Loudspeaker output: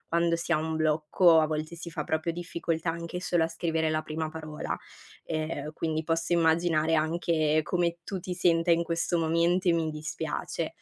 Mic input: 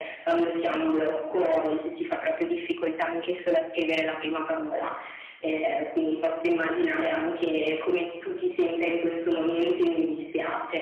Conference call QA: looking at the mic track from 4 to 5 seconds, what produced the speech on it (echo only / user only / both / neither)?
echo only